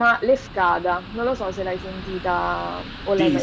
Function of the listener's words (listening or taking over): taking over